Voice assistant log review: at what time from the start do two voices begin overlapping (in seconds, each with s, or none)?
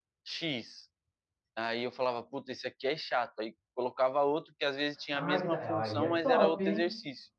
5.1 s